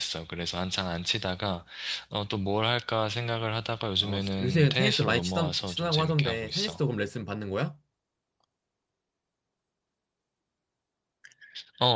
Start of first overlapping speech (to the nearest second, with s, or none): 4 s